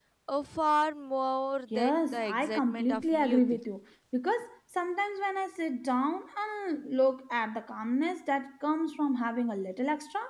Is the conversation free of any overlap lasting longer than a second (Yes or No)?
No